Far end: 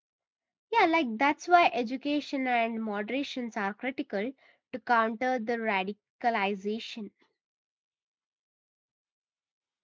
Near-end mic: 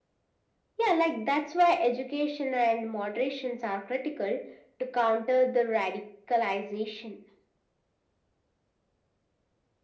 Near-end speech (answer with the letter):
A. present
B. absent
B